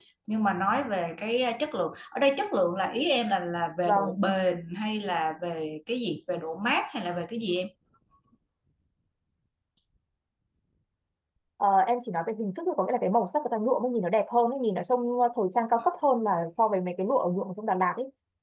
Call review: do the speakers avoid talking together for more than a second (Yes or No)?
Yes